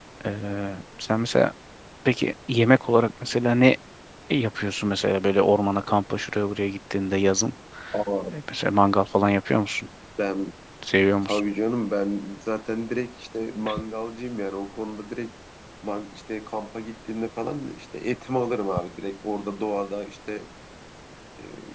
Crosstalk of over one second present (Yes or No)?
No